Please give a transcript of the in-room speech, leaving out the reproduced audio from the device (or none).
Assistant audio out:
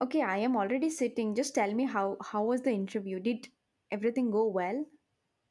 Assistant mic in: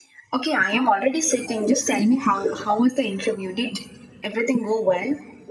none